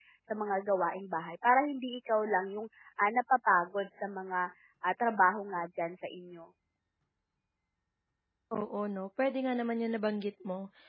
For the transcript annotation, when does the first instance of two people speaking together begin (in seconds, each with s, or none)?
none